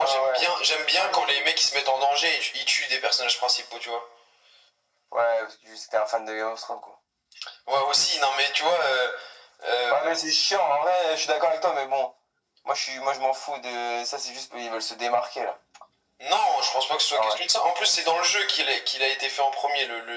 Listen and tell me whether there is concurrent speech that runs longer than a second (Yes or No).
No